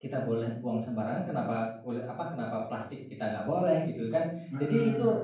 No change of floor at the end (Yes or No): Yes